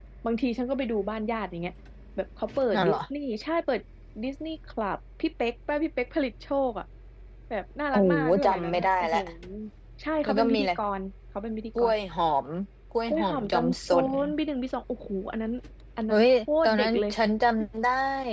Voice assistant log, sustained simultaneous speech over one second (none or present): present